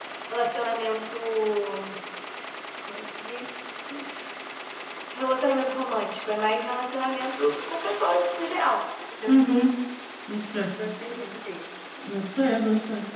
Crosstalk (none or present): none